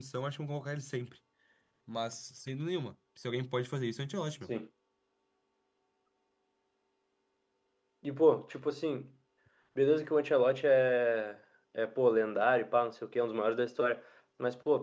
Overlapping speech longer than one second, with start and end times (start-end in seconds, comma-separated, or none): none